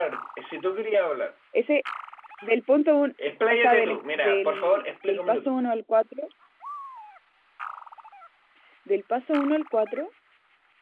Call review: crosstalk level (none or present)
present